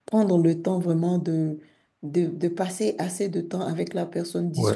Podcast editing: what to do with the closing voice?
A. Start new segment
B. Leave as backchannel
B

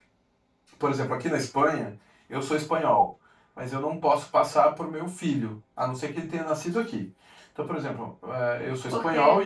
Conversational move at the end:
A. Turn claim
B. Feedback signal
A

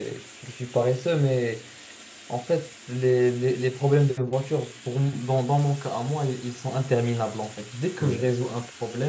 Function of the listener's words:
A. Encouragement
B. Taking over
A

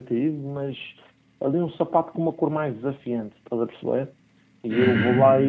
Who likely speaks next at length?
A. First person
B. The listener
A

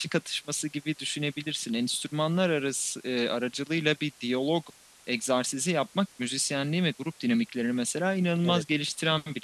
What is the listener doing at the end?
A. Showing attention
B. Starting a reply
A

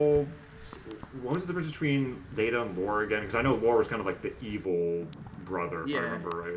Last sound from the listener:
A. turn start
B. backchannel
A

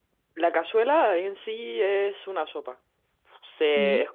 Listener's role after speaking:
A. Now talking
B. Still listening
B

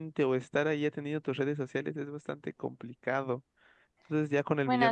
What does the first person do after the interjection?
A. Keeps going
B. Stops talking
A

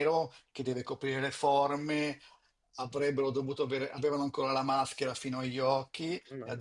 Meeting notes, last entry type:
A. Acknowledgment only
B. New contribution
A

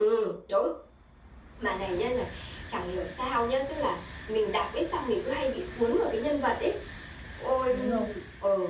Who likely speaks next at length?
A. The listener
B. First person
B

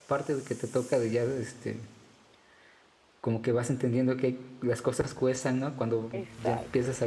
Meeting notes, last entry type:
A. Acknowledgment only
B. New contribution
A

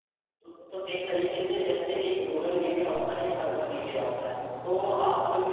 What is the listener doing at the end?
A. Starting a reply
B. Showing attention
B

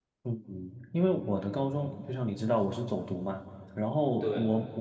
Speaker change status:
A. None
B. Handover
A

